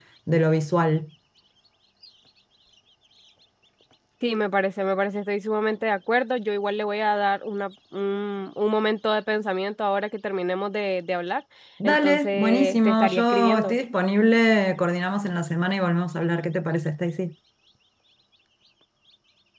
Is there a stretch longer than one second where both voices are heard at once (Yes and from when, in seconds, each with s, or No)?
Yes, from 11.8 s